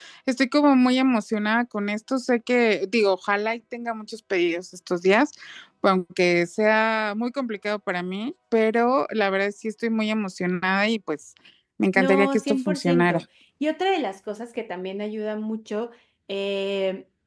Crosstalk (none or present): present